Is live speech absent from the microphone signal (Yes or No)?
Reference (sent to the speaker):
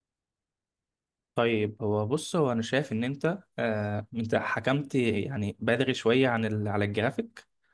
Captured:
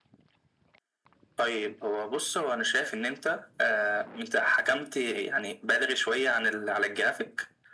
Yes